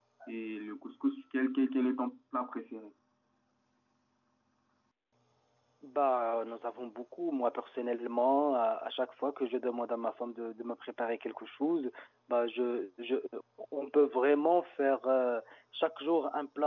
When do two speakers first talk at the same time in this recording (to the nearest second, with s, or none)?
none